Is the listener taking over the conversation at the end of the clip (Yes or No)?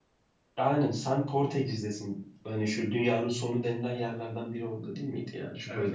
Yes